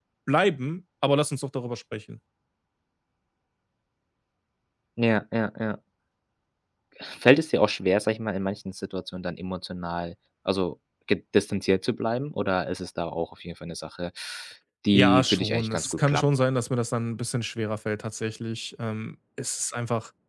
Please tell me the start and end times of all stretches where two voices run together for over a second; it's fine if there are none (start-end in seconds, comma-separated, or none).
14.9-16.2